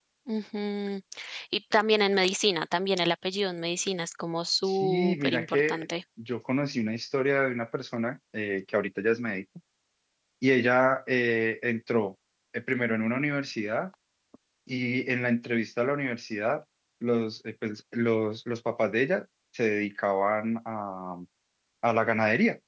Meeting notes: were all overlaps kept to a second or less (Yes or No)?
No